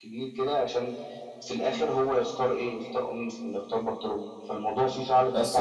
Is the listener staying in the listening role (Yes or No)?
No